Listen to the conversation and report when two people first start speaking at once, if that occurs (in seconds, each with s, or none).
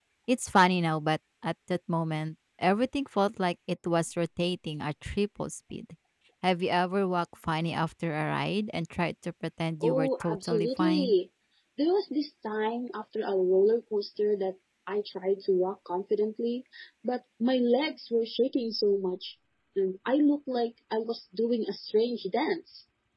9.8 s